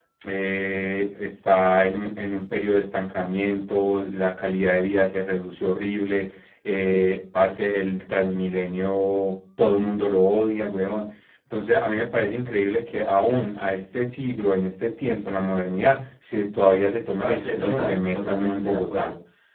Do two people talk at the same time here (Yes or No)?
Yes